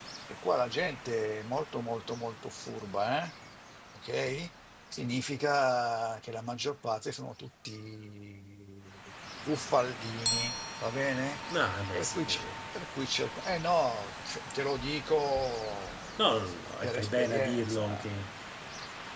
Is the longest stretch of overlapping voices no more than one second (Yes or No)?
No